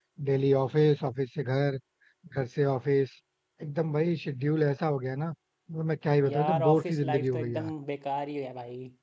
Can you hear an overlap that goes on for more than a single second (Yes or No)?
Yes